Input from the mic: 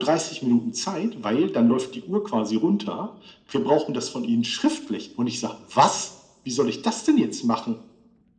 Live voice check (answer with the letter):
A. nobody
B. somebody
A